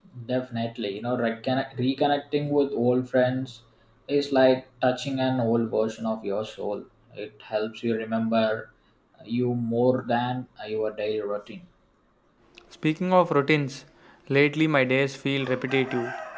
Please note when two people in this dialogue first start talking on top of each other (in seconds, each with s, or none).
none